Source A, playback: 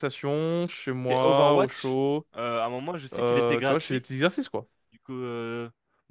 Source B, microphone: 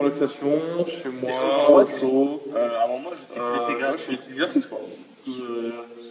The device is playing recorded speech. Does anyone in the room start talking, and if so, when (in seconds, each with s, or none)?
none